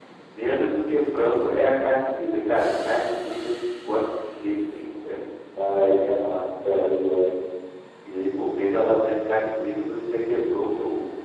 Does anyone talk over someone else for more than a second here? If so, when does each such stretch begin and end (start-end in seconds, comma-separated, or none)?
none